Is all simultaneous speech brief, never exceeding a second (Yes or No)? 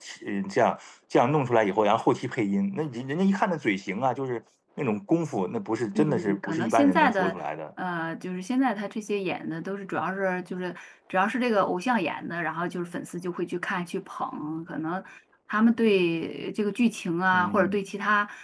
No